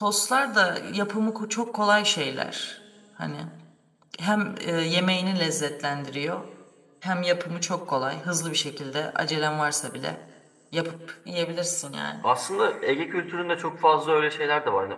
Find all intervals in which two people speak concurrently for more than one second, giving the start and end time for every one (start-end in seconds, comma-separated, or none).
none